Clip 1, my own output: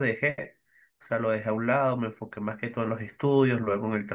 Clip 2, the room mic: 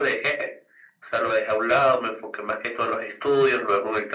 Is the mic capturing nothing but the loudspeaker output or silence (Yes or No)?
Yes